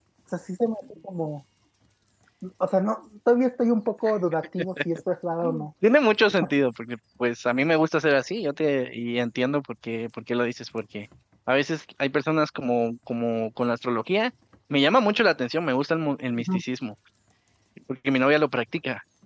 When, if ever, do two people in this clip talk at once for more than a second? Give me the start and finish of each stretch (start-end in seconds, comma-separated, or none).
none